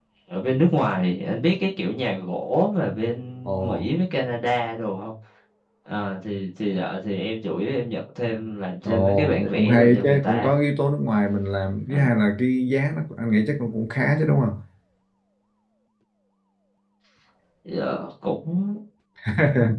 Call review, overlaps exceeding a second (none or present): present